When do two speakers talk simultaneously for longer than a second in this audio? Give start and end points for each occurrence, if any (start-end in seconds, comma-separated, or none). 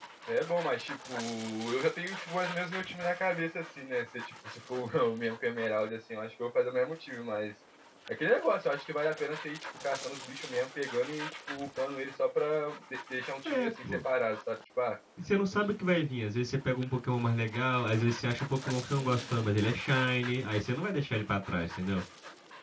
none